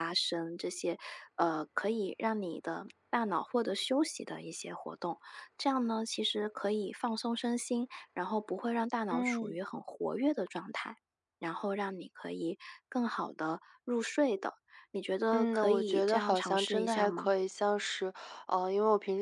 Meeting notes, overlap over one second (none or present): present